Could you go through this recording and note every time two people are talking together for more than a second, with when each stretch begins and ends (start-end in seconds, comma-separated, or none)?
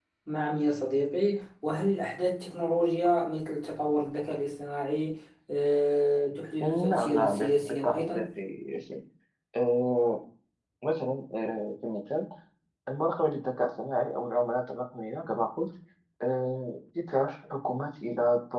6.9-8.2